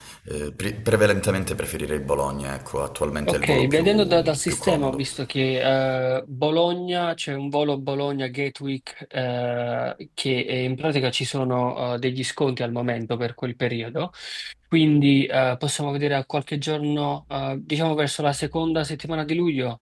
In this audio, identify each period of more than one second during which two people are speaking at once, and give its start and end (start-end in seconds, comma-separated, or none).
3.3-5.1